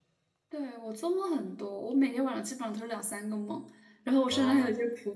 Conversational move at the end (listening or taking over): listening